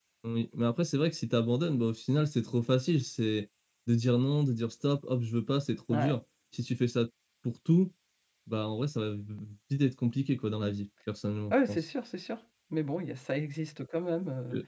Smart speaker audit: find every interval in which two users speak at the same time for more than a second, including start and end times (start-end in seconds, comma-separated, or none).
none